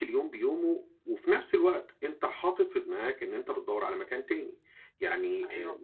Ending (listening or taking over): taking over